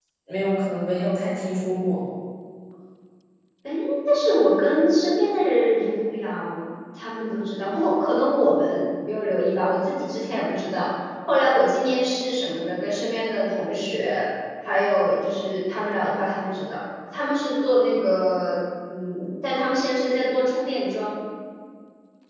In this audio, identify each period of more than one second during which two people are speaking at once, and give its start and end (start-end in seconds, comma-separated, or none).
none